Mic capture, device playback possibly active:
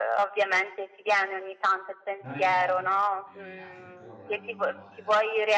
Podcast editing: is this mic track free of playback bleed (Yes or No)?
No